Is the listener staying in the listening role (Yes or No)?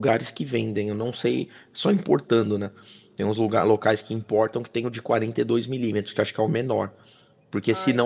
Yes